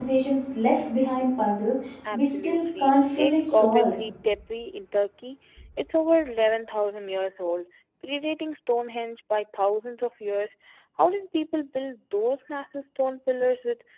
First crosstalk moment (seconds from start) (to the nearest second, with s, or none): 2 s